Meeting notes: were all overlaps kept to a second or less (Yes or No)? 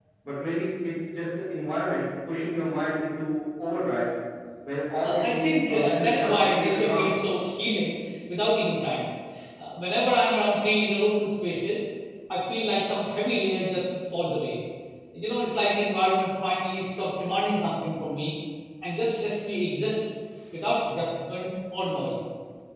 No